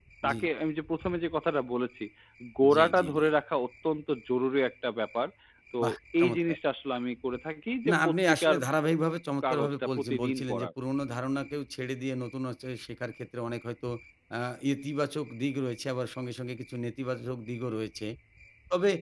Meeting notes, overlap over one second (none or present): present